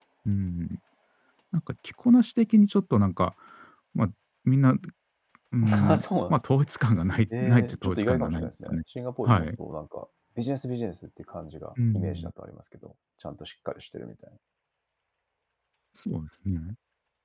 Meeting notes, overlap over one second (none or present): present